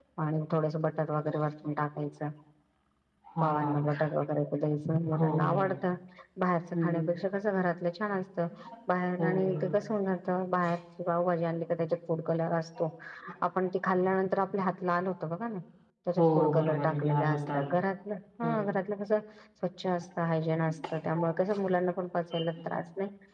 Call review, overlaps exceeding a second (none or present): present